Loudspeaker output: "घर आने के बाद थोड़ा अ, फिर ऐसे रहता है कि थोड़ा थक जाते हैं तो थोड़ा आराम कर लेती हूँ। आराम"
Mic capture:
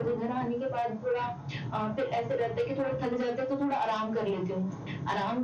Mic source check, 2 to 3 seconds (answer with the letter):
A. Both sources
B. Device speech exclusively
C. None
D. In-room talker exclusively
B